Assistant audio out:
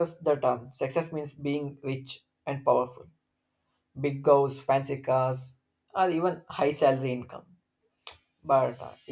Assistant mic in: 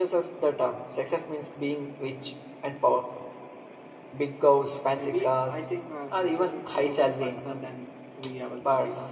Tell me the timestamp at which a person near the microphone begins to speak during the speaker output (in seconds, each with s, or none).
4.9 s